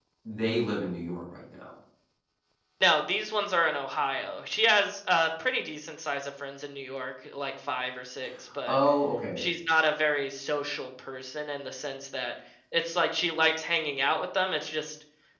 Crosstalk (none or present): none